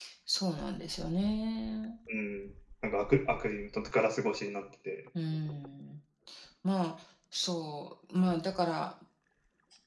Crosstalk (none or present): none